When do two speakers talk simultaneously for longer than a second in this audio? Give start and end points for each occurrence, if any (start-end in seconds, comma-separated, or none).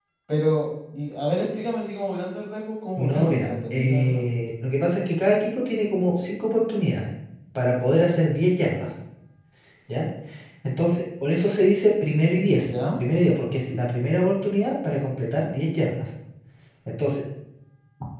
3.0-4.3